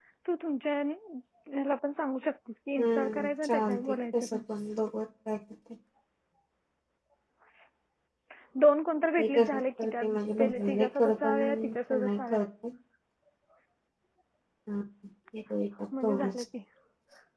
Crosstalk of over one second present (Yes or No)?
Yes